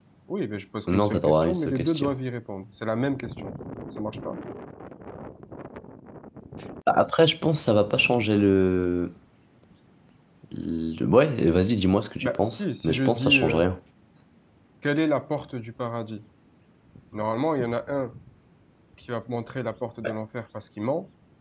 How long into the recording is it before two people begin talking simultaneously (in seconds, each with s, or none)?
0.9 s